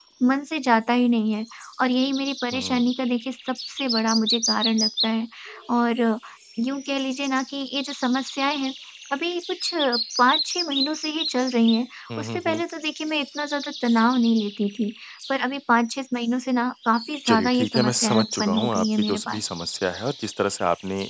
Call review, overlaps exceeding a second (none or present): present